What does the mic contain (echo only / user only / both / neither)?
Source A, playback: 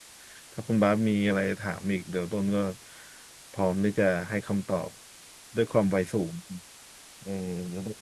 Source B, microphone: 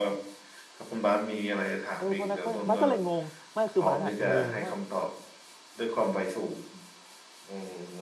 both